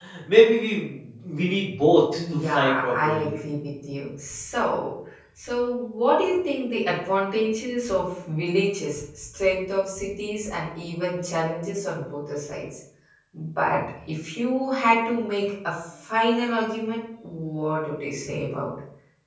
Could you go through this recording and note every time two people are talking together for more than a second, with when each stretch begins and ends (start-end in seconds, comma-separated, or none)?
2.2-3.4